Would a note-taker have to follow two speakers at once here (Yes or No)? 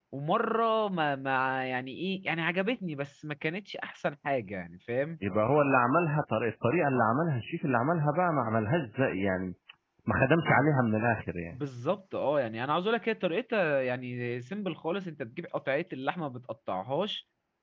No